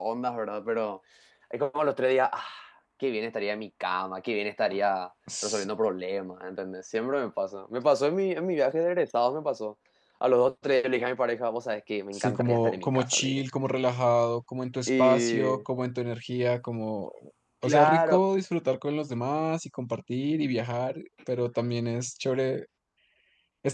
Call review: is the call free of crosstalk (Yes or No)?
No